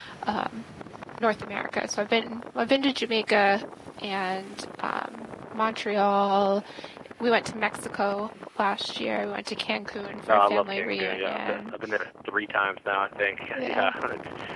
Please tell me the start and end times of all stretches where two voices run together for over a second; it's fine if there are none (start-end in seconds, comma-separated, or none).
10.3-11.6